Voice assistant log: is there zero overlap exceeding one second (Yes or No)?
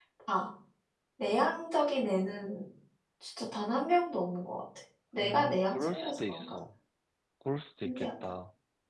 No